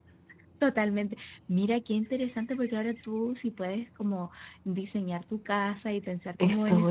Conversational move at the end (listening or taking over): taking over